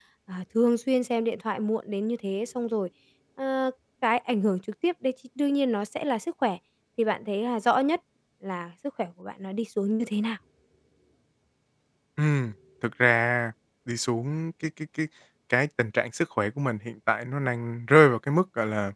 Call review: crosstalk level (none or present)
none